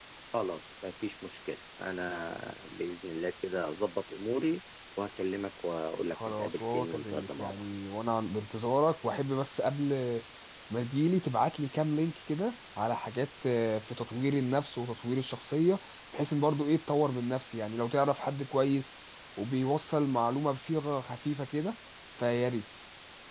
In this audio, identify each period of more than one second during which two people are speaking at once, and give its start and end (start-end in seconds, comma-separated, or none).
6.1-7.6